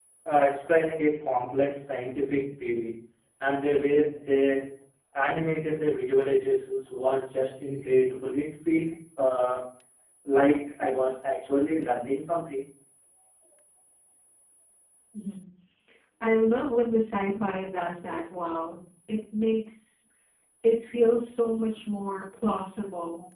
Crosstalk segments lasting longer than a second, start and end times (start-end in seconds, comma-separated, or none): none